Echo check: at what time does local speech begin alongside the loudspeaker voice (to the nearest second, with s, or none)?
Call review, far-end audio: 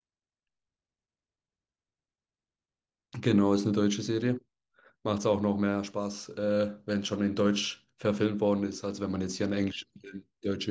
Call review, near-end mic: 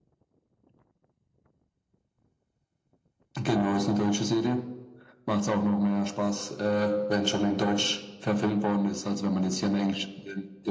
none